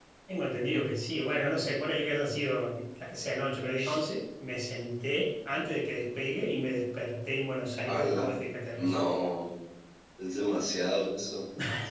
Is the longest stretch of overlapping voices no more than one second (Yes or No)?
Yes